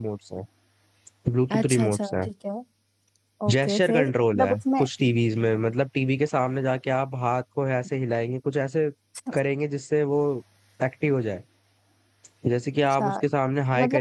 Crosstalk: present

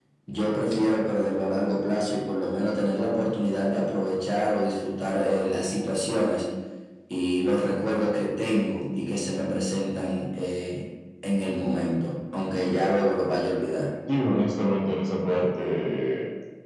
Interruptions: none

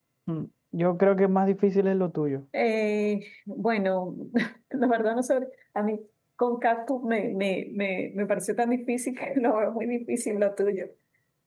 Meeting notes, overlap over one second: none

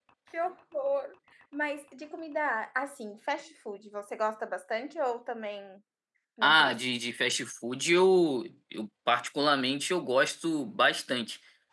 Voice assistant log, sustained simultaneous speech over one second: none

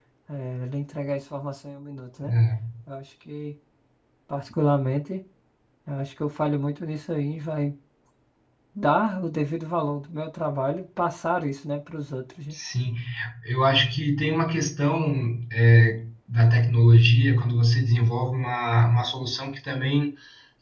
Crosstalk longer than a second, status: none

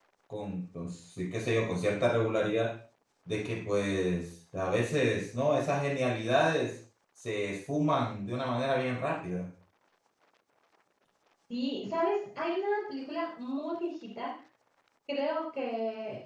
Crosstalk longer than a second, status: none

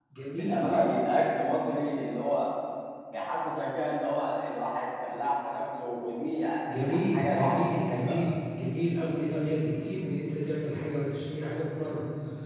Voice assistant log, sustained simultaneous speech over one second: present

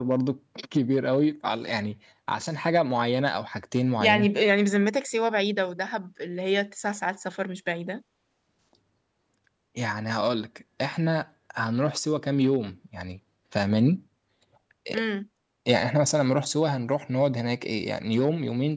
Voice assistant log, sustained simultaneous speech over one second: none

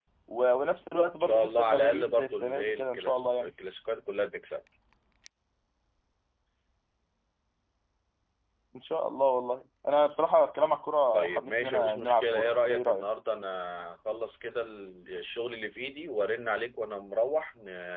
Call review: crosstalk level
present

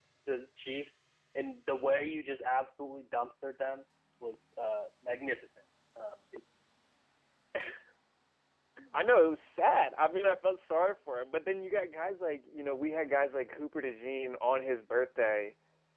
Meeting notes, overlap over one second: none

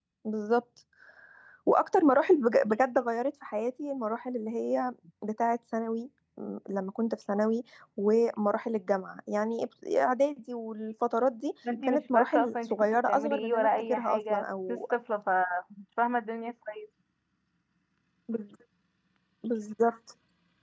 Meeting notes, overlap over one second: present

